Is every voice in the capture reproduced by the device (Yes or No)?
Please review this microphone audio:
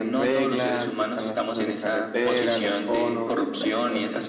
No